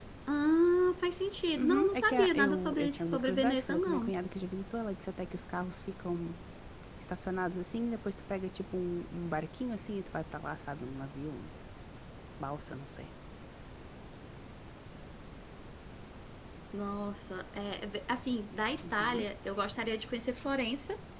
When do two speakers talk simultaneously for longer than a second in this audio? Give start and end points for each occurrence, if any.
1.6-4.1

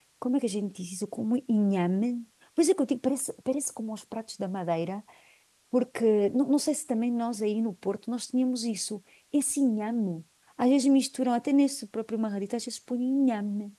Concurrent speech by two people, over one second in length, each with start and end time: none

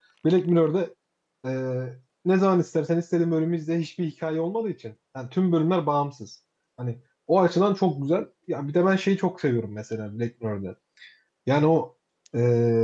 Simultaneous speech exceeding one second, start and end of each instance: none

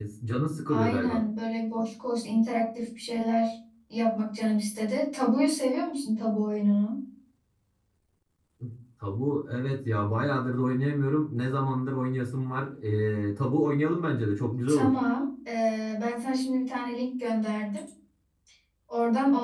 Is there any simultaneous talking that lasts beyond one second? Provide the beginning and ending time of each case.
none

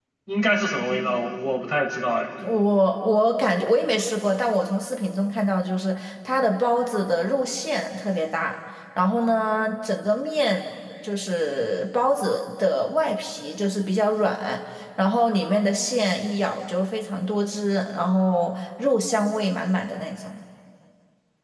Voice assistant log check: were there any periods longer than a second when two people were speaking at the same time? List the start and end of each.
none

